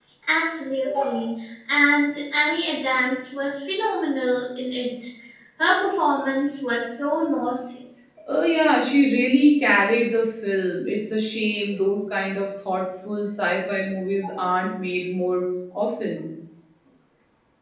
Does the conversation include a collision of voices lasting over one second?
No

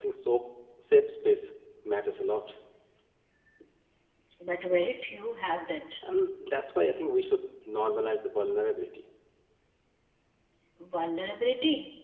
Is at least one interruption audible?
No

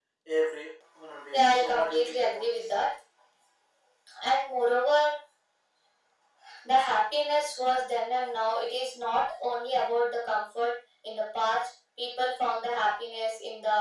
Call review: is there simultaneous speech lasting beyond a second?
Yes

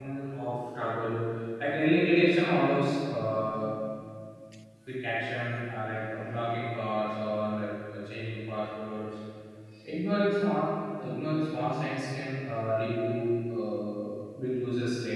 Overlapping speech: No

